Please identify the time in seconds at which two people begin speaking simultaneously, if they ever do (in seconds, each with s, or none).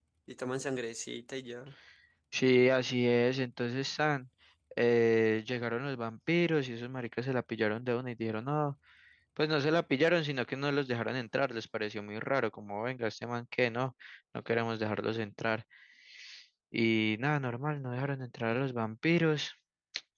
none